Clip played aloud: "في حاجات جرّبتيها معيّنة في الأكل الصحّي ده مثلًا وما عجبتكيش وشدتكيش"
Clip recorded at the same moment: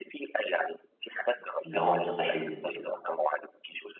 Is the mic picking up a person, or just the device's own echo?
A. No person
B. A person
B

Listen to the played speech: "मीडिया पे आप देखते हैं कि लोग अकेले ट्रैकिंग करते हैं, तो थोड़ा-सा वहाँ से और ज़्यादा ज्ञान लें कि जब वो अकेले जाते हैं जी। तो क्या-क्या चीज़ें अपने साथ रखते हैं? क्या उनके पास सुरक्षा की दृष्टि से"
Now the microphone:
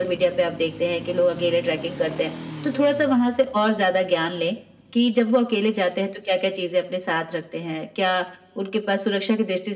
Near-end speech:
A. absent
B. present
A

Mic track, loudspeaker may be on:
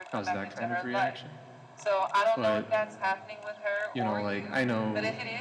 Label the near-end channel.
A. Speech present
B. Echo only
A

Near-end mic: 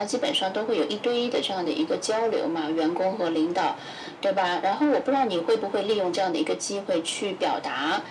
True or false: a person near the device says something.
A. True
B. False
B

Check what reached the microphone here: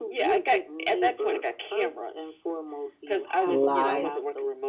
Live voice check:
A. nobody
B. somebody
B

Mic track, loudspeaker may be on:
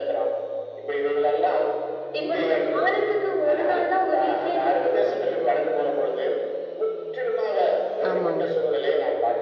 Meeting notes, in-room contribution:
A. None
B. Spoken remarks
B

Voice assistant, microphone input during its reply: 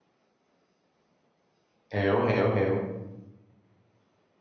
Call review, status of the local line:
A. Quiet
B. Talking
B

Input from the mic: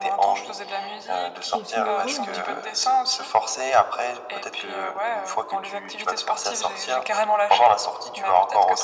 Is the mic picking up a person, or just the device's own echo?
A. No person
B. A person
B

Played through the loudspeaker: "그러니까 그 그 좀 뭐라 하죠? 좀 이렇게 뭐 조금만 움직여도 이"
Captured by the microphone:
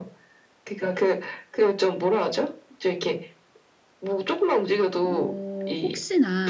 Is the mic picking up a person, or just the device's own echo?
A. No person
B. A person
B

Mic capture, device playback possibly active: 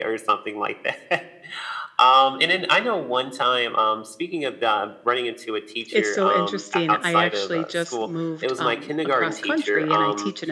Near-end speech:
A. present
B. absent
A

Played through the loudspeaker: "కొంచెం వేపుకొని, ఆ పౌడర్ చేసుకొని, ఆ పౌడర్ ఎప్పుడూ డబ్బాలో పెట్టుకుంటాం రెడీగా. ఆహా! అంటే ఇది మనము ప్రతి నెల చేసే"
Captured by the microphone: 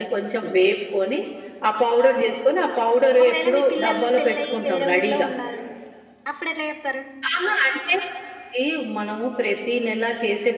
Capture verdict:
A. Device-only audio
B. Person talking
B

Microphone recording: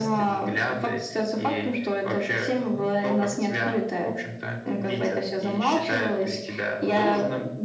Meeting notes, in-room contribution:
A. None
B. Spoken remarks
B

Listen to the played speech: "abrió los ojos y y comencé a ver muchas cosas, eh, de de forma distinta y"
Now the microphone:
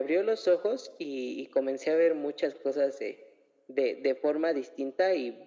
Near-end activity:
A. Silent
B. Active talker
A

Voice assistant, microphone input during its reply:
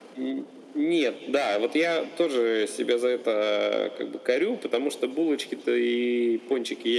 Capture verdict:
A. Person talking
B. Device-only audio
B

